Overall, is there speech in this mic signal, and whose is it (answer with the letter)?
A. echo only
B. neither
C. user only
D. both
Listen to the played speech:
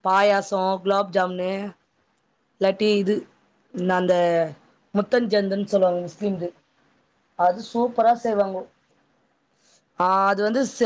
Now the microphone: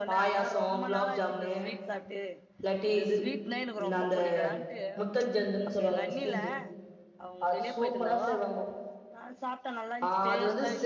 D